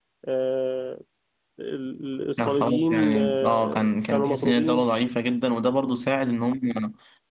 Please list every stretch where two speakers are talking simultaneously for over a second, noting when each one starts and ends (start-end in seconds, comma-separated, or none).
2.4-4.9